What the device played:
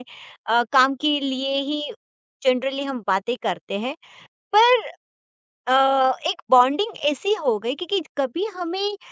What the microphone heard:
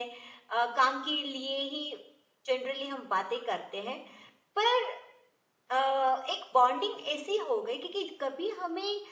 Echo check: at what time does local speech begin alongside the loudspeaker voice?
none

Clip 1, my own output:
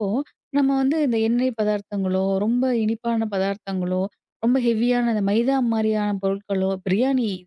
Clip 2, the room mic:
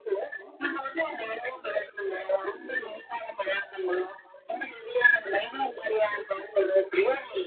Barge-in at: none

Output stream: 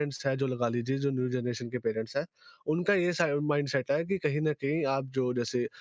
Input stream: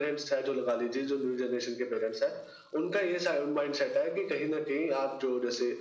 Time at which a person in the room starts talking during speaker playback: none

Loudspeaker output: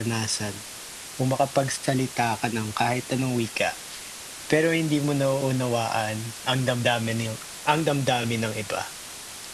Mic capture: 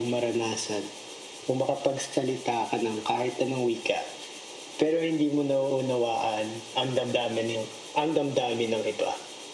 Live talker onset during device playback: none

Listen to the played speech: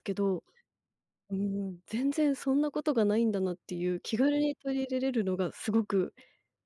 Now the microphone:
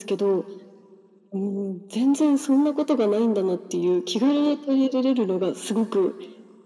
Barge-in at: none

